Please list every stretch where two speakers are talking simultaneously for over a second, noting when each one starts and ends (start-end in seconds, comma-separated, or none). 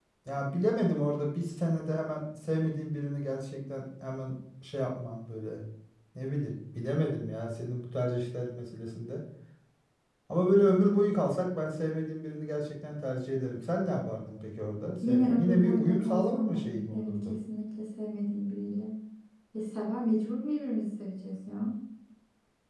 15.1-17.3